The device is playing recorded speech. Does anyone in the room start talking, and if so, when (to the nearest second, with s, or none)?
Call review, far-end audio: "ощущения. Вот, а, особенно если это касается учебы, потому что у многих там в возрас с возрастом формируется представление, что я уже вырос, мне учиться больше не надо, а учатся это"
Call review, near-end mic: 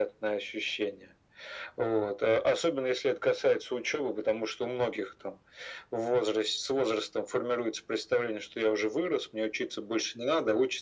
none